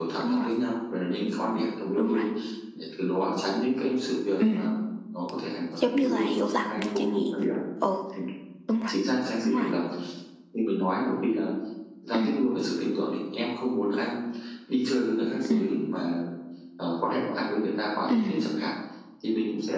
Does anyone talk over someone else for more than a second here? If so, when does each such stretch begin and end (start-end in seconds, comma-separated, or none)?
5.8-7.2